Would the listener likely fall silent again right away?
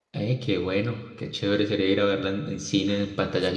No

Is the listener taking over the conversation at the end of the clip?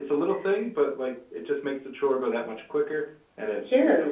Yes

